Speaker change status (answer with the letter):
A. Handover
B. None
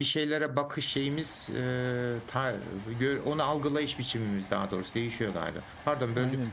A